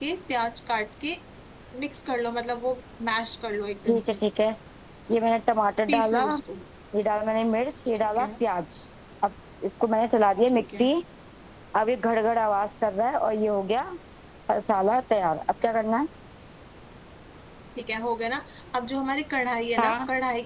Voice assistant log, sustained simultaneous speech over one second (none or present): none